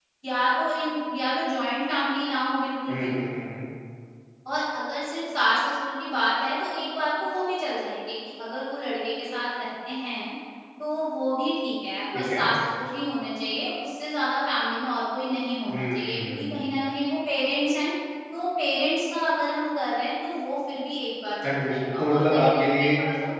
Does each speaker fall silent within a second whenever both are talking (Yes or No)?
No